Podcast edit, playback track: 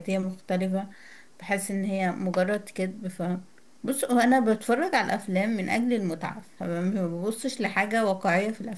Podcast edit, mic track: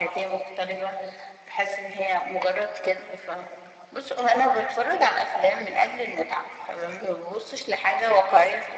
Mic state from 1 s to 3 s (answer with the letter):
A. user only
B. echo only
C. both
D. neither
B